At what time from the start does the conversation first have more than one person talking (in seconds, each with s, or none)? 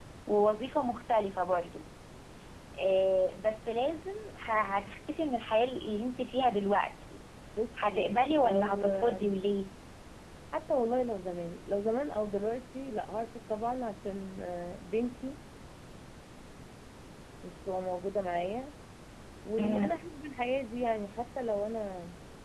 7.9 s